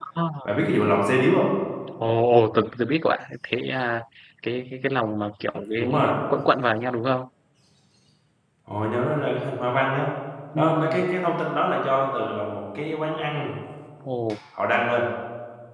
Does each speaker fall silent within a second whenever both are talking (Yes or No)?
Yes